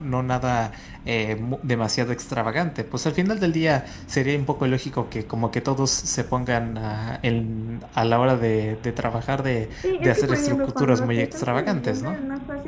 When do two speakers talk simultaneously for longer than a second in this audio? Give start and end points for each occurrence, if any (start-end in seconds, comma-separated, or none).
9.8-12.2